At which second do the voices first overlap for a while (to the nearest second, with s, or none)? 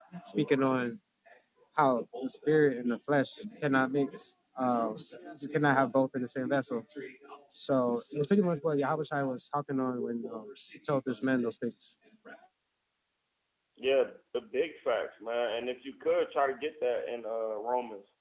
none